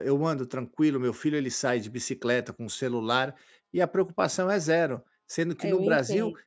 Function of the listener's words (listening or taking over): listening